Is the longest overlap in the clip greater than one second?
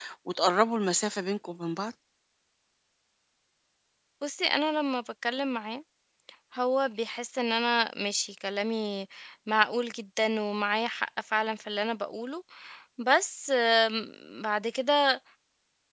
No

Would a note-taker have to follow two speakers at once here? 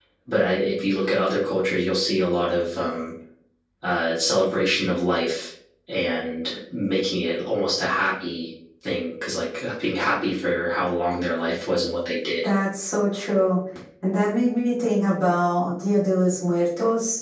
No

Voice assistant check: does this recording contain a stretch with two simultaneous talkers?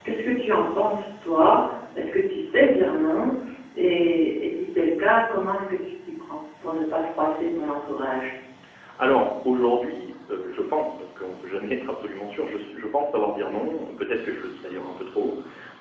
No

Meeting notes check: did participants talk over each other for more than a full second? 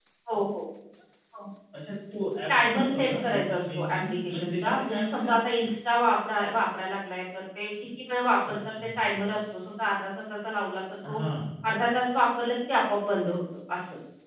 Yes, from 2.5 s

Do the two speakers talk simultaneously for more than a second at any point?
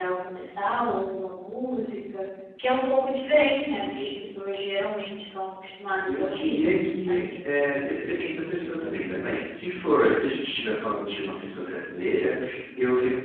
No

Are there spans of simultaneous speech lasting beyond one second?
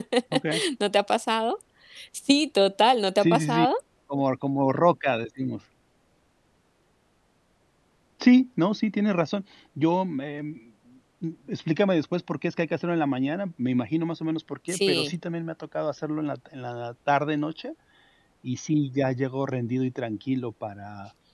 No

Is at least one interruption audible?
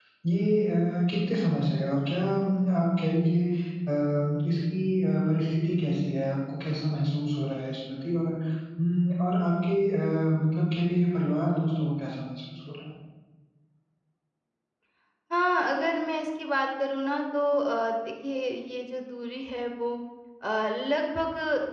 No

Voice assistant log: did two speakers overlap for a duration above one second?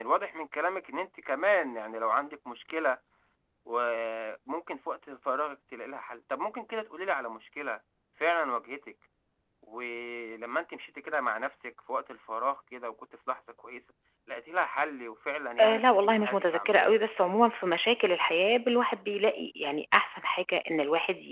Yes, from 15.6 s

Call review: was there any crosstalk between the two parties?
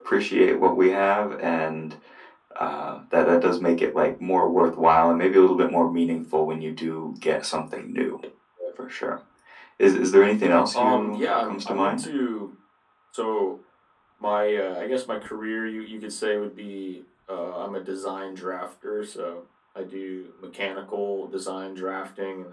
Yes, from 10.7 s

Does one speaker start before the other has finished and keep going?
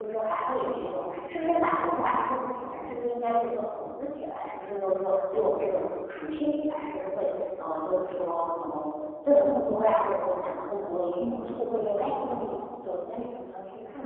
Yes, from 11.2 s

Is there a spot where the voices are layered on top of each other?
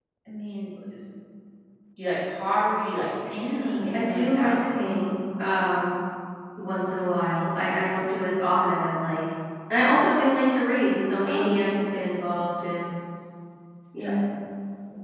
Yes, from 3.4 s

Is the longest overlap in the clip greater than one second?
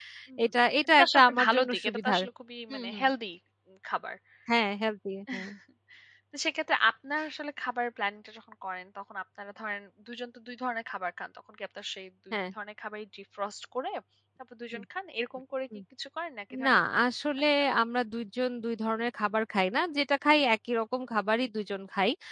Yes, from 0.8 s

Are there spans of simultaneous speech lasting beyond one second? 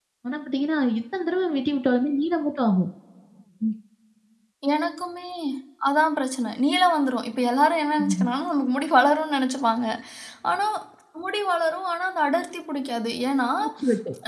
No

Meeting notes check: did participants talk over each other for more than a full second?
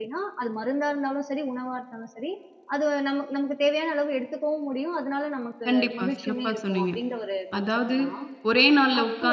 Yes, from 5.7 s

